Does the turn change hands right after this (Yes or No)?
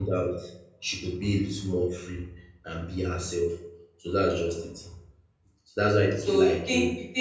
Yes